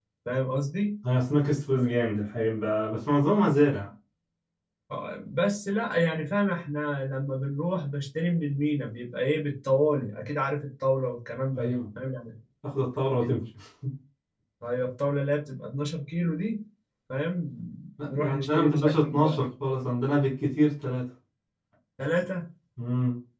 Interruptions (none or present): present